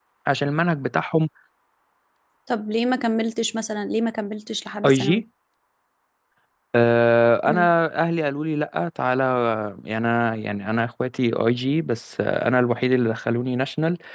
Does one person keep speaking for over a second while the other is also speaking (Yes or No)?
No